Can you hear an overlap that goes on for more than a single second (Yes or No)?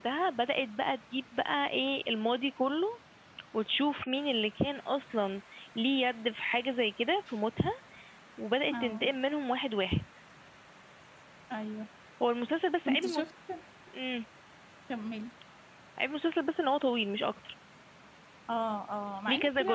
No